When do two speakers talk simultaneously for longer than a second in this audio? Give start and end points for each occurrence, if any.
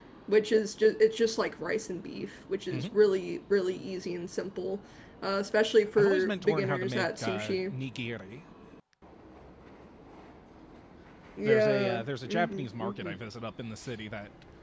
6.0-7.7, 11.4-13.2

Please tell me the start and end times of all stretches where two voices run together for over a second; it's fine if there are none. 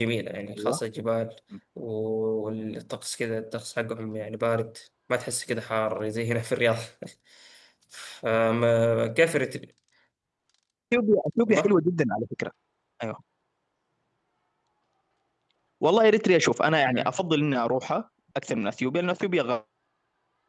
none

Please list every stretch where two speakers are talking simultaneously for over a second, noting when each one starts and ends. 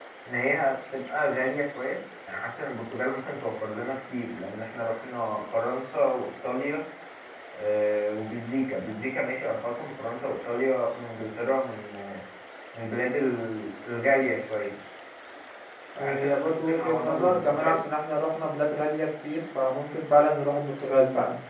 16.0-17.8

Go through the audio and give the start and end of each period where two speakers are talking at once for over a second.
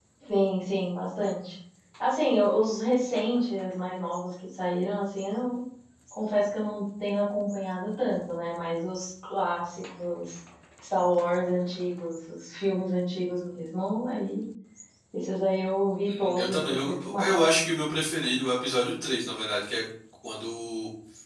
16.1-17.3

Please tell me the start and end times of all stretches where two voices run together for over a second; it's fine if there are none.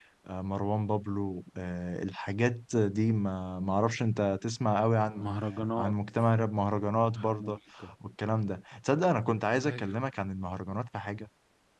none

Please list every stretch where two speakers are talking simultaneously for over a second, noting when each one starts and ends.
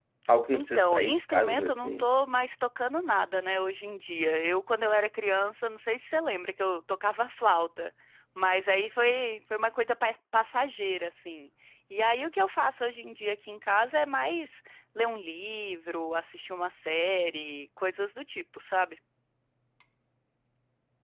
0.5-2.1

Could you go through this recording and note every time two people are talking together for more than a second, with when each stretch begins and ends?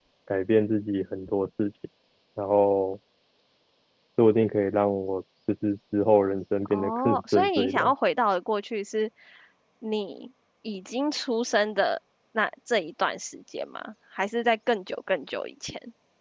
6.6-7.9

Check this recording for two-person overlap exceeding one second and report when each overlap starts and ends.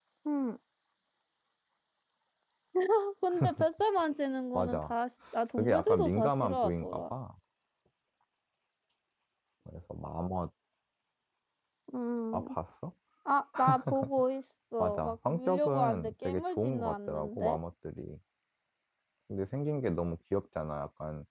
5.6-7.1, 14.8-17.6

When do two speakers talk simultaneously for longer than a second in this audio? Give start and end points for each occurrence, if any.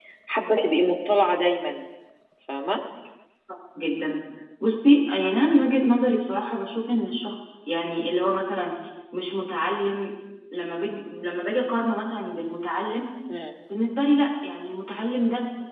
none

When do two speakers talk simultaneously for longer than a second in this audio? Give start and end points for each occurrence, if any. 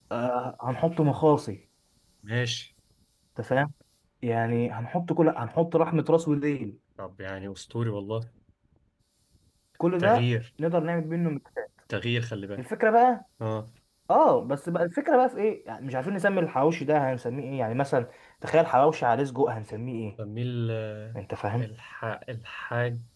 none

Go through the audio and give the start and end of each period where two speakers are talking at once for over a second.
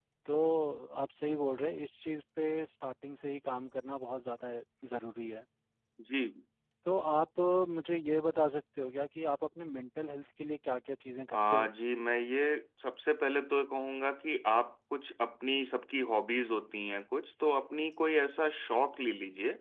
none

